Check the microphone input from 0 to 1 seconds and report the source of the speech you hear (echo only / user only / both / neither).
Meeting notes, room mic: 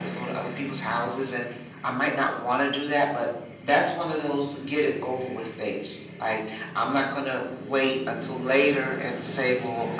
echo only